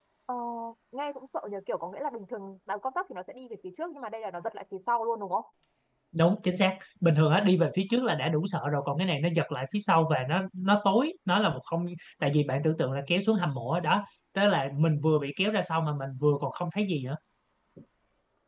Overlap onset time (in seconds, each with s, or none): none